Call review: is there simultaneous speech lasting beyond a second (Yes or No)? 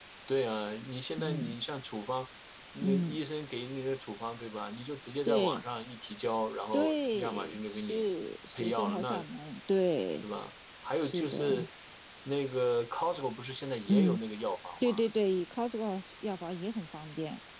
Yes